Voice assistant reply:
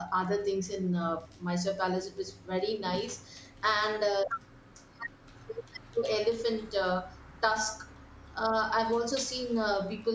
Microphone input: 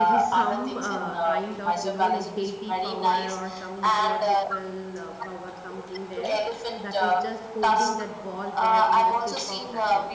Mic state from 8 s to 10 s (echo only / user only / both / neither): both